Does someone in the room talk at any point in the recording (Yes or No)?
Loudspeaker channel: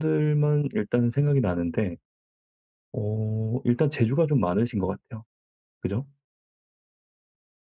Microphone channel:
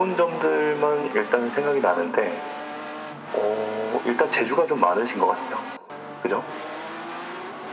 No